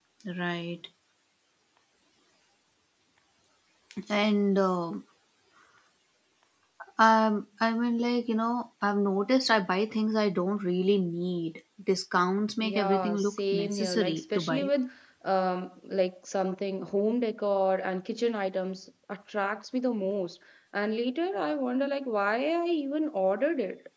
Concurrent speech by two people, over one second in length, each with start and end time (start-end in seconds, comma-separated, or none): 12.6-14.7